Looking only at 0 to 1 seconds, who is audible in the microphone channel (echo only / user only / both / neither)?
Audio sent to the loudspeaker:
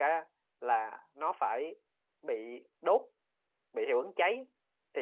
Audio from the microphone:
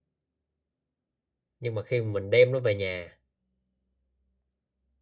neither